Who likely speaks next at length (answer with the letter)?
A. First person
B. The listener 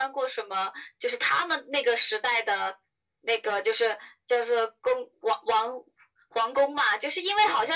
A